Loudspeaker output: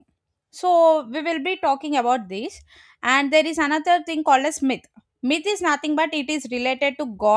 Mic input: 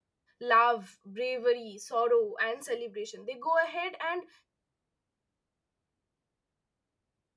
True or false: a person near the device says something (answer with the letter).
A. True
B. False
A